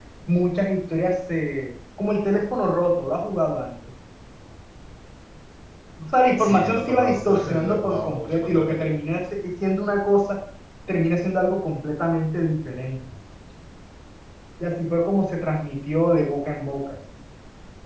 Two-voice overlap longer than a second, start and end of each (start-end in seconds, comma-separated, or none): 6.4-9.0